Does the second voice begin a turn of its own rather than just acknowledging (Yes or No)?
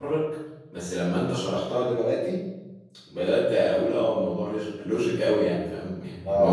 Yes